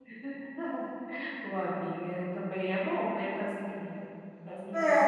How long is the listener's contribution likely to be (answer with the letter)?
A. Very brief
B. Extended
B